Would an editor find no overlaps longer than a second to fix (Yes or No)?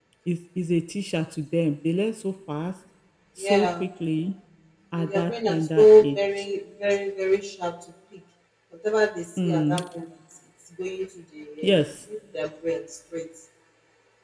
No